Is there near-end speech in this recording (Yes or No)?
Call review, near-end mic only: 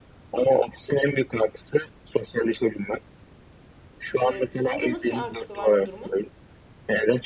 Yes